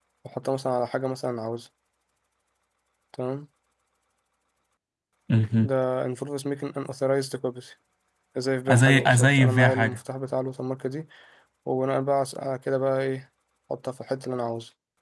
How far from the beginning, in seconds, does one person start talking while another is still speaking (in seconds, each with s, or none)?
8.7 s